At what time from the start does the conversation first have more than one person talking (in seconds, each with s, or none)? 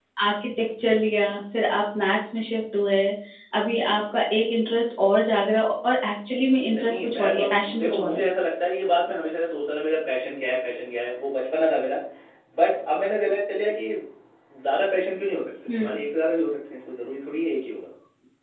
6.6 s